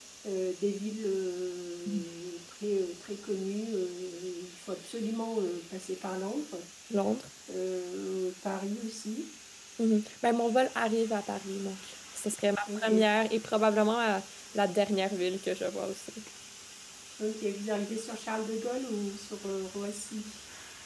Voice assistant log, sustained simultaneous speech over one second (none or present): none